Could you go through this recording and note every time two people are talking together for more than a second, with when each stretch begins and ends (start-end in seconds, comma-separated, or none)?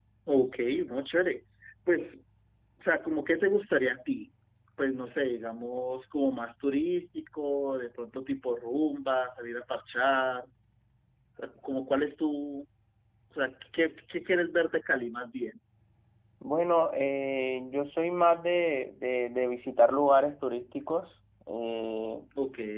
none